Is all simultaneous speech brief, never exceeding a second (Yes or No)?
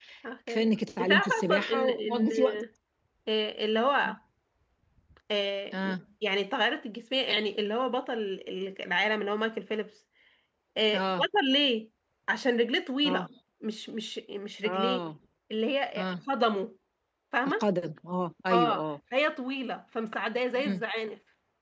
No